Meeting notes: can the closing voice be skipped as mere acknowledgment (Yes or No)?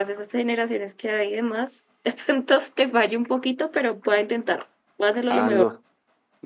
No